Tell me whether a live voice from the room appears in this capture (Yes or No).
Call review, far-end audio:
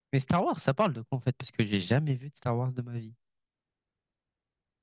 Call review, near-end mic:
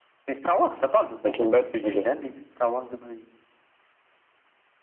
Yes